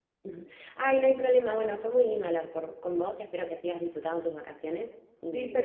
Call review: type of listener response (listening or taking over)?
taking over